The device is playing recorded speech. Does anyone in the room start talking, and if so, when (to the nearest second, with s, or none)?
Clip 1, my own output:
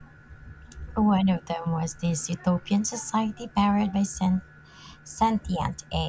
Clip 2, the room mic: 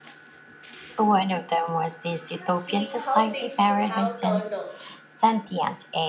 3 s